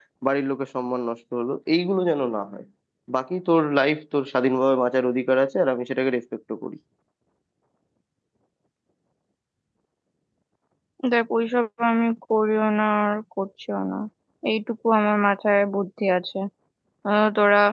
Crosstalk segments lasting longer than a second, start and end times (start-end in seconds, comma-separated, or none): none